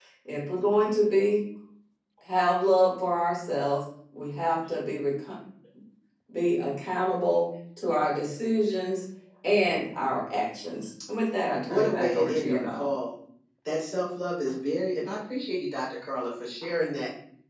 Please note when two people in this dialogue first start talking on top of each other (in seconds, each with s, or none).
11.6 s